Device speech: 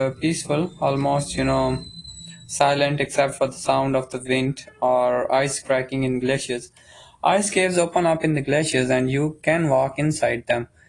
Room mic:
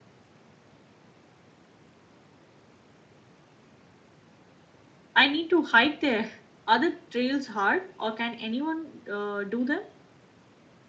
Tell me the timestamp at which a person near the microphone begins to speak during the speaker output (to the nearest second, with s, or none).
5 s